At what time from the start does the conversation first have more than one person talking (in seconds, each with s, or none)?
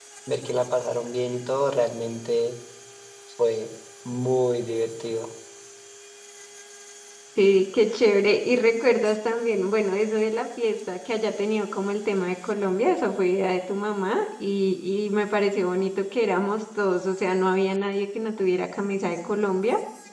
none